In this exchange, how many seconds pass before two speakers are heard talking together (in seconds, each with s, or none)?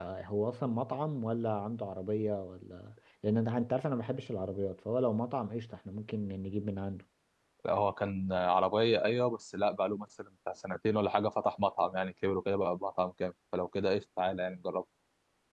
none